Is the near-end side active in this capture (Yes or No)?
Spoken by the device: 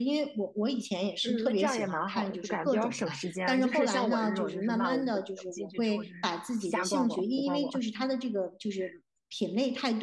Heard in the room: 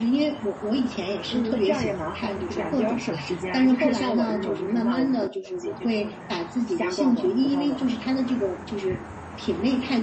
No